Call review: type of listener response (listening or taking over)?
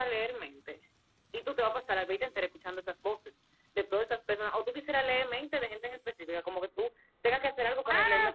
taking over